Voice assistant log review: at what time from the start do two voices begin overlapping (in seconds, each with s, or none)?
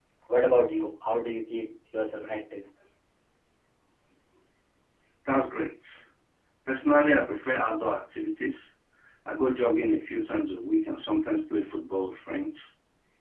none